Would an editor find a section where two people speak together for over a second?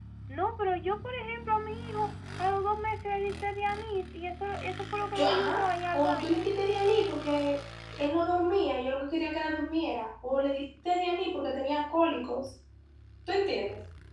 Yes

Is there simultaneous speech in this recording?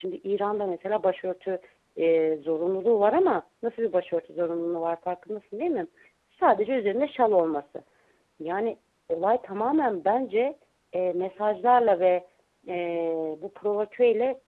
No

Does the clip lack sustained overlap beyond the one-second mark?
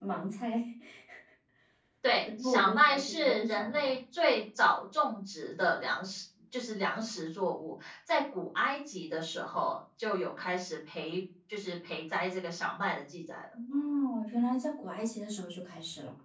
No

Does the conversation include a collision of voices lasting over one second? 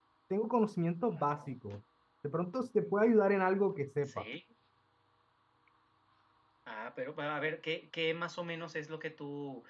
No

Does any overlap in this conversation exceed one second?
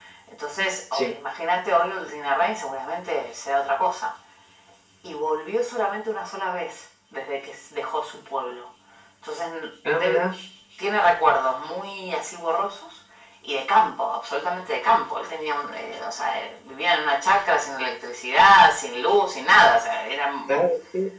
No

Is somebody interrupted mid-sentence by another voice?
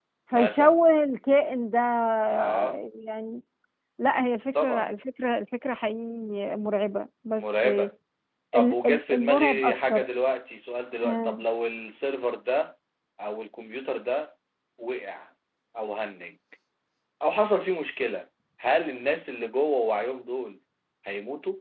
Yes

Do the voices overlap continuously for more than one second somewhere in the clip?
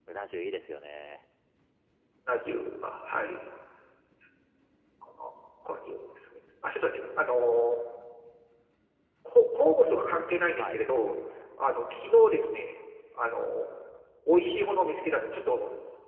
No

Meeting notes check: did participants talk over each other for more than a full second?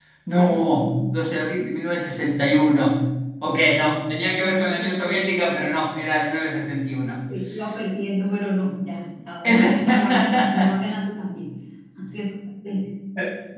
Yes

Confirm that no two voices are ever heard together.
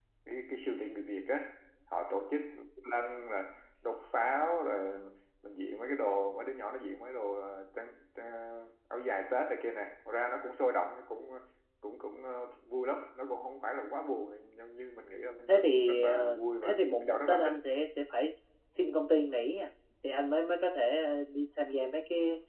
No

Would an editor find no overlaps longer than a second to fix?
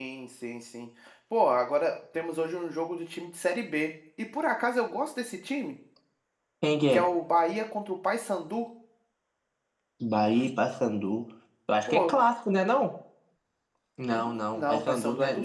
No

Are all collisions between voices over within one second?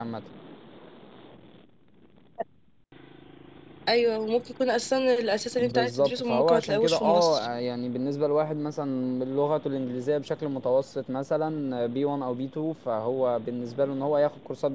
No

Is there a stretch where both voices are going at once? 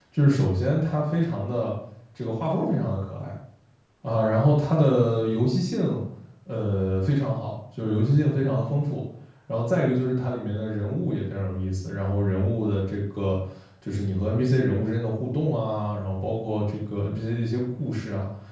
No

